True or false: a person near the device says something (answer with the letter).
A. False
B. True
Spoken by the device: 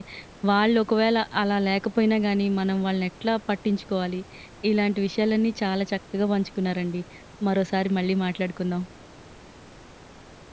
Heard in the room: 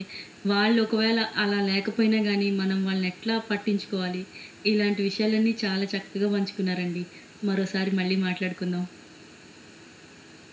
A